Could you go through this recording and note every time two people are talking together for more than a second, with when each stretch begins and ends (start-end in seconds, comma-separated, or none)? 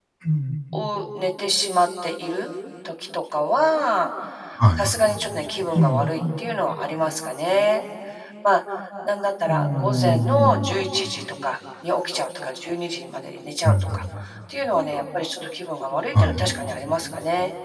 9.5-10.7